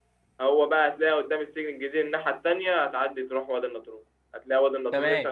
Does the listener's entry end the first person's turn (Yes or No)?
No